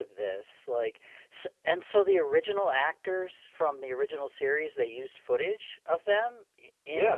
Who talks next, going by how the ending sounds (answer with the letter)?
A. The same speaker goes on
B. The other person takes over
B